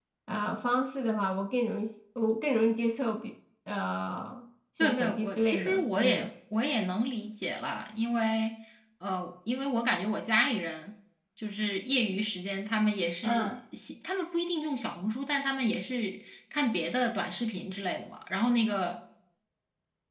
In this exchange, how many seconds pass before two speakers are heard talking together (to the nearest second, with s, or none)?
5 s